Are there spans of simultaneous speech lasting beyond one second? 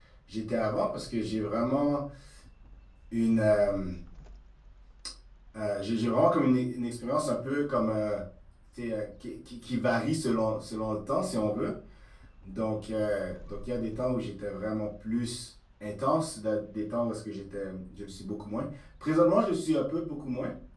No

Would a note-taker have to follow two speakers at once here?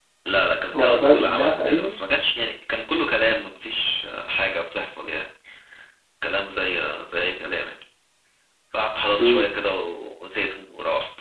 Yes, from 0.7 s

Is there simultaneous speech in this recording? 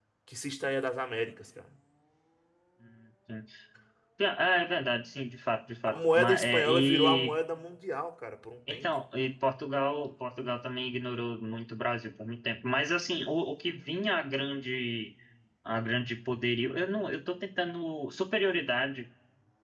Yes, from 5.8 s

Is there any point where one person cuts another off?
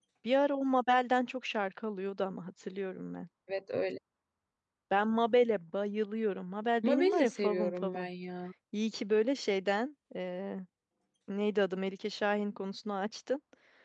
Yes, from 6.8 s

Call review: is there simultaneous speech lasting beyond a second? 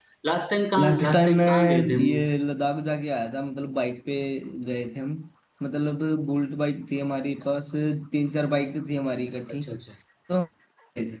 Yes, from 0.8 s

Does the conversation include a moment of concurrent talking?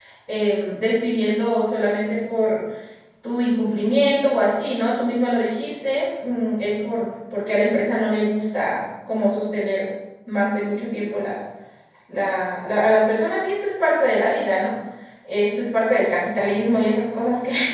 No

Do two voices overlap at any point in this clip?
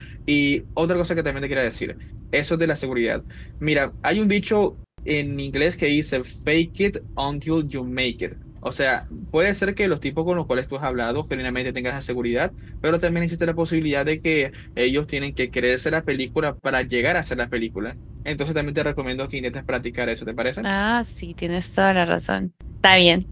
No

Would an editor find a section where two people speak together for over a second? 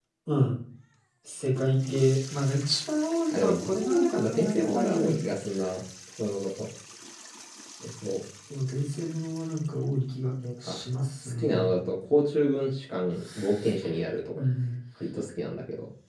Yes, from 3.3 s

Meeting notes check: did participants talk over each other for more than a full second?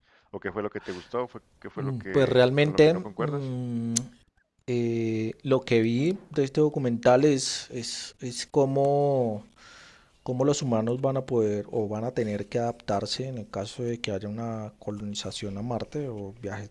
Yes, from 1.8 s

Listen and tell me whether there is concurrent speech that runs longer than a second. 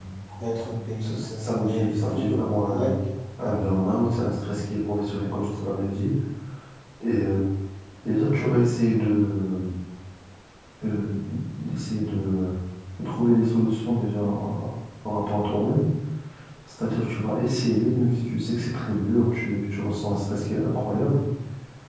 Yes, from 1.0 s

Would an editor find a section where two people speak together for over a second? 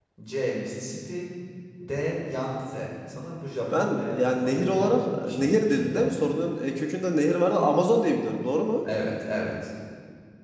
Yes, from 3.7 s

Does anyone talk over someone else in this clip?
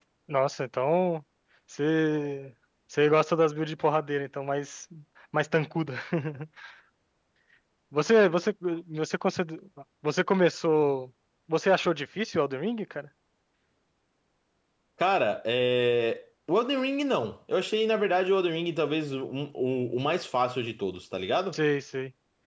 No

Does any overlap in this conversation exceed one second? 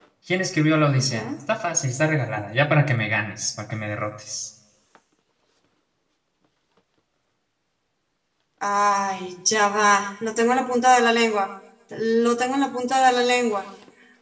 No

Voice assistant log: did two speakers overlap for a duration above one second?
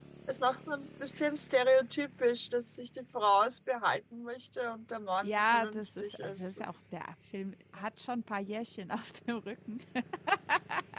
Yes, from 5.2 s

